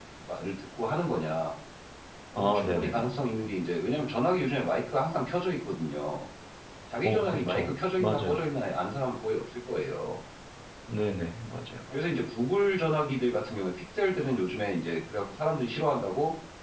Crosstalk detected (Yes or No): Yes